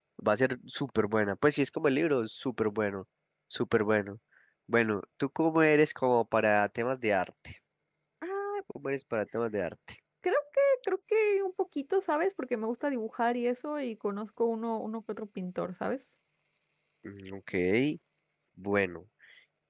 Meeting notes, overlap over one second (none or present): none